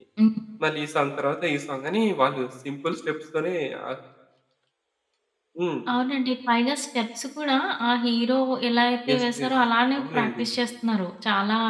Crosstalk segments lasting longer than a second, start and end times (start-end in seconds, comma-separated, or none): none